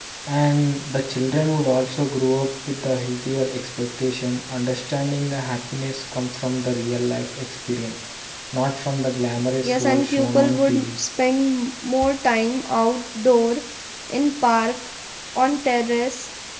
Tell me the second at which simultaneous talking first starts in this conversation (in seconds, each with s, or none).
9.6 s